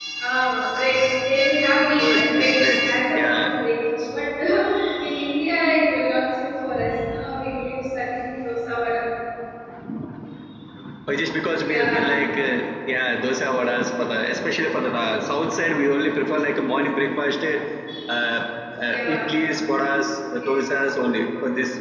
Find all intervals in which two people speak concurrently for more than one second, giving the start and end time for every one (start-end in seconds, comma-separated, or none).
2.0-3.5